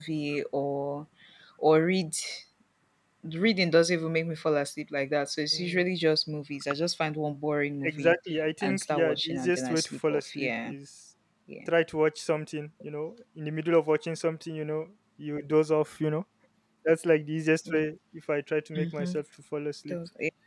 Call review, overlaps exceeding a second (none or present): present